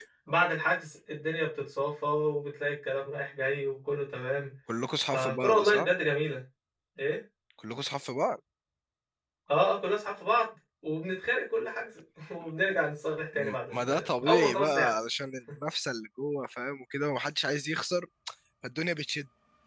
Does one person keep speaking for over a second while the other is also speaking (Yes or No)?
Yes